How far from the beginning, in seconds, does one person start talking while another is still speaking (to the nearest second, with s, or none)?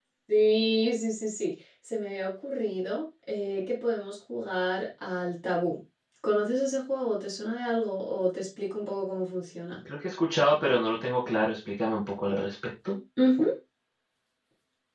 none